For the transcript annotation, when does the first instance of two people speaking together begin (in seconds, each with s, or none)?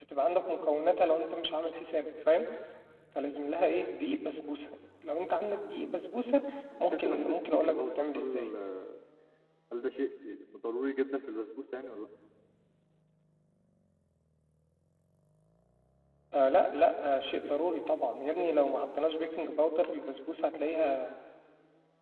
6.7 s